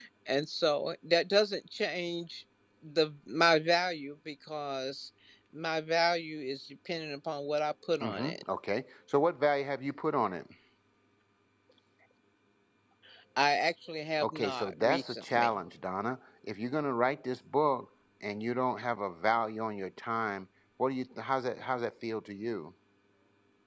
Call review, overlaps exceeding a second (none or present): present